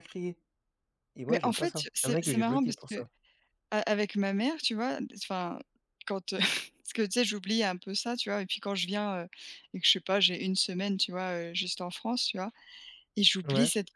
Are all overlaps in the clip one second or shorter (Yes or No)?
No